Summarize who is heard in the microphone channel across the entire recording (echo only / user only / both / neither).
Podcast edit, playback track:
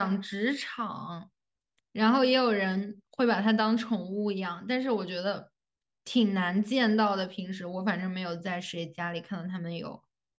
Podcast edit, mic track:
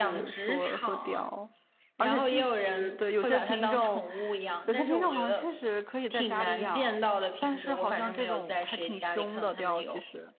both